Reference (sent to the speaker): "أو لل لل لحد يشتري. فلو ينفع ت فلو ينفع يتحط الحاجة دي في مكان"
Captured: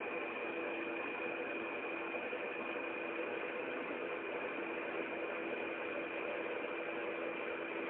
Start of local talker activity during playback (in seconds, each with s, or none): none